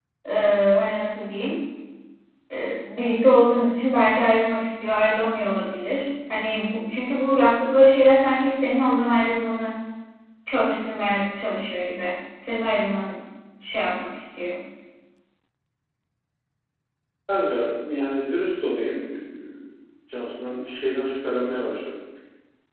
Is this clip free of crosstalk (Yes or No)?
Yes